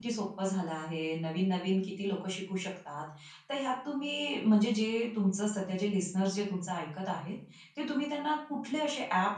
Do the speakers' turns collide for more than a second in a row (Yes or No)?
No